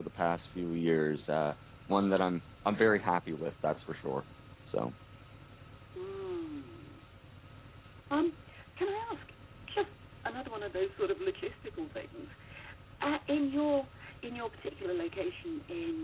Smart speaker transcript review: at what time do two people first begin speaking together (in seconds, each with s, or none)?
none